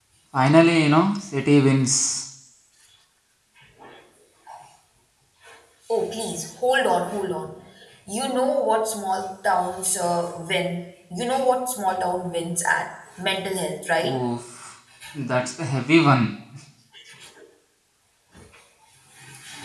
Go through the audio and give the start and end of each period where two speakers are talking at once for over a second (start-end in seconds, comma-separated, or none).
none